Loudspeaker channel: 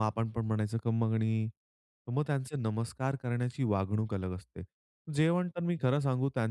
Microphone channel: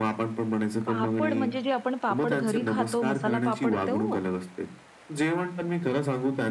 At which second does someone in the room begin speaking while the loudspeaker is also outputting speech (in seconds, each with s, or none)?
0.9 s